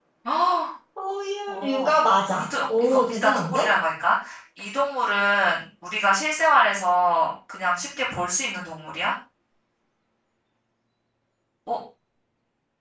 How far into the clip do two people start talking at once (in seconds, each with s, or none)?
1.5 s